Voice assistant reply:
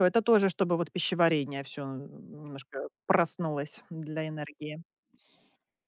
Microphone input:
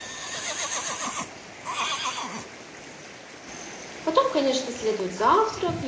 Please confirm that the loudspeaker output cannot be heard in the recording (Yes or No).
Yes